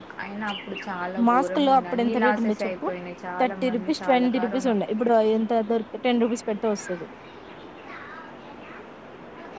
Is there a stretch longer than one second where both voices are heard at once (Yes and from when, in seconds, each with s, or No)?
Yes, from 1.3 s